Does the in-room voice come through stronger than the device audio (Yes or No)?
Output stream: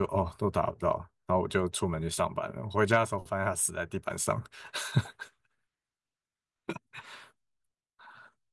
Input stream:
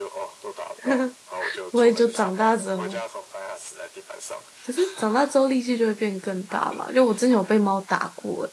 Yes